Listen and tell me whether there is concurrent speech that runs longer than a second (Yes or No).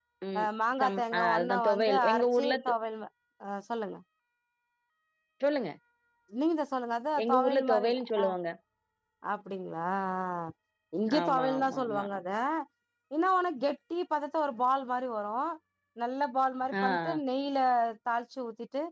Yes